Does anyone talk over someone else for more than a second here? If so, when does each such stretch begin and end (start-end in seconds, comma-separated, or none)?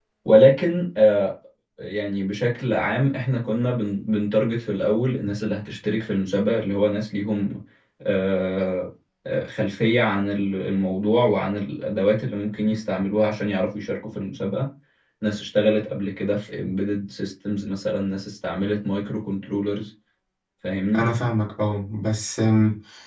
none